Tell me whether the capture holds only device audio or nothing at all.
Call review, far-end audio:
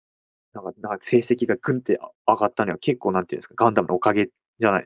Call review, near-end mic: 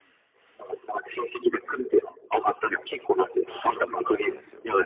No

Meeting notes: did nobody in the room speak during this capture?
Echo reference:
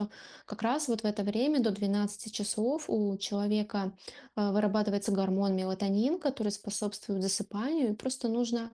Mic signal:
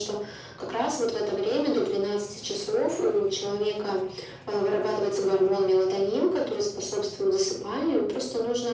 Yes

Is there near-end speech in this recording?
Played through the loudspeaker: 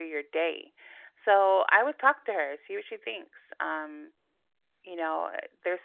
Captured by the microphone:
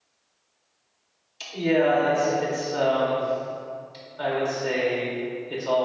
Yes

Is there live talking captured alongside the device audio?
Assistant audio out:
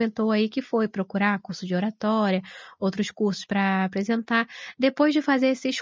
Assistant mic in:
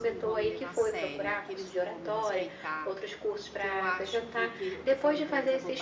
Yes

